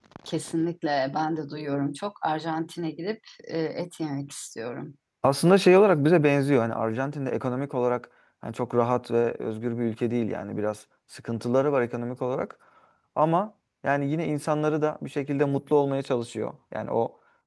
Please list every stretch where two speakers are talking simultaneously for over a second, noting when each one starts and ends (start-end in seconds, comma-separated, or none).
none